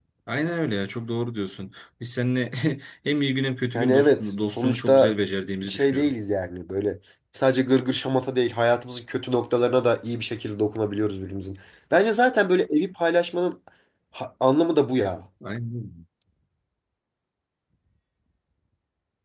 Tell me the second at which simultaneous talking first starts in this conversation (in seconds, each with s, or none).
3.7 s